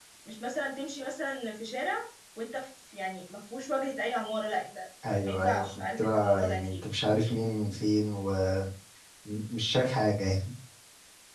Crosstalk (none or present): present